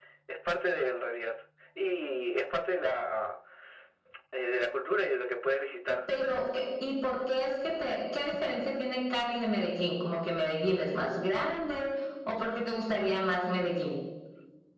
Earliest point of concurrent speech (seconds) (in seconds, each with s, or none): none